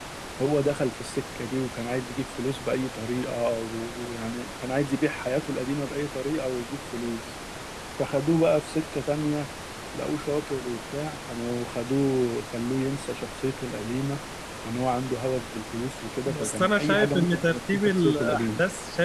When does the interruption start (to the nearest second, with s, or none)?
16 s